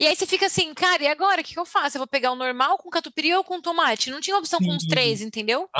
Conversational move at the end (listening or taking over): taking over